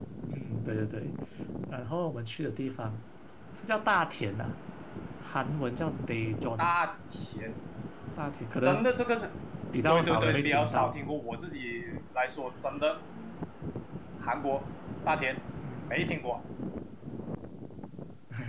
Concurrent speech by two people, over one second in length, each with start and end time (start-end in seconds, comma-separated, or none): 9.9-11.1